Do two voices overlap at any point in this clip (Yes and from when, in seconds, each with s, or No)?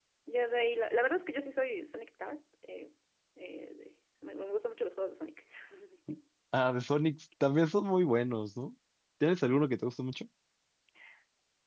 No